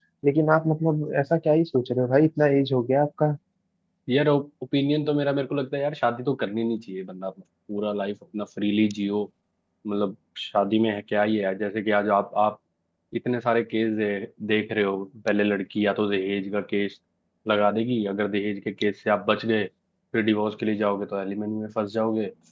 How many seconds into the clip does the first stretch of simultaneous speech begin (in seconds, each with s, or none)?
none